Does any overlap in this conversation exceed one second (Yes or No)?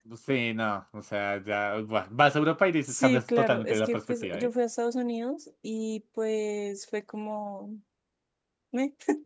Yes